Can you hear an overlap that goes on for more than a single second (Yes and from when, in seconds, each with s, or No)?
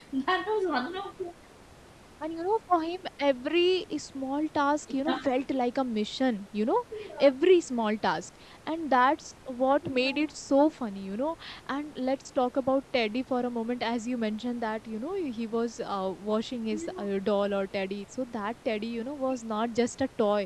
No